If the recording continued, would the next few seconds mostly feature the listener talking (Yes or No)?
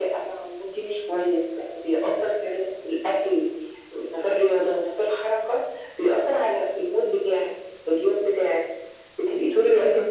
No